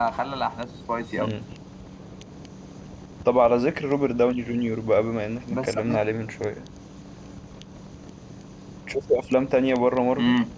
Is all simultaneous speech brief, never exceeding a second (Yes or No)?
Yes